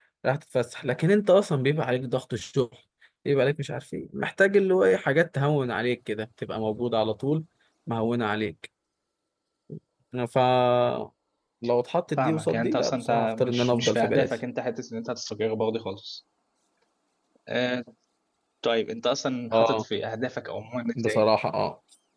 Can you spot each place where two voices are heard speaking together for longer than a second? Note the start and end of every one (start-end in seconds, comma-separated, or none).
12.2-14.3